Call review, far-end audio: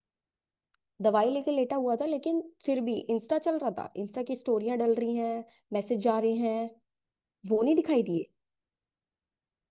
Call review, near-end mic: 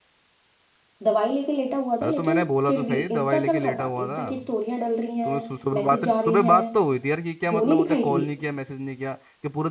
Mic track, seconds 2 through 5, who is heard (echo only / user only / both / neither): both